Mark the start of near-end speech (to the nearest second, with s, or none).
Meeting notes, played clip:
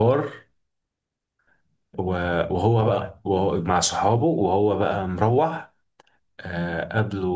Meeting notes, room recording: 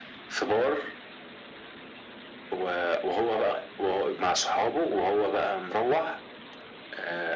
none